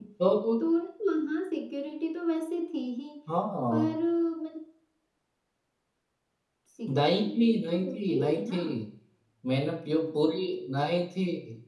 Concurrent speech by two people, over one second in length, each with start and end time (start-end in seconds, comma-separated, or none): 6.9-8.6